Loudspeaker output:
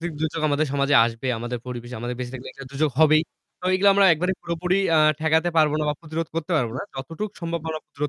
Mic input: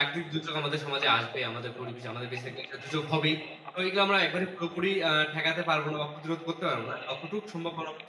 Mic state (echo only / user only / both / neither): echo only